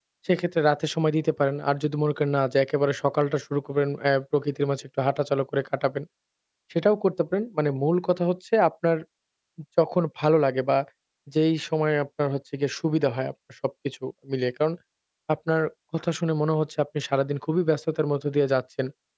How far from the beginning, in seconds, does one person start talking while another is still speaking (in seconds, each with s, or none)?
none